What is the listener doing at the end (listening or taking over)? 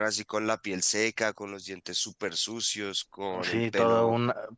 taking over